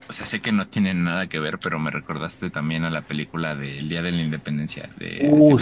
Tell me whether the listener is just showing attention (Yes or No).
No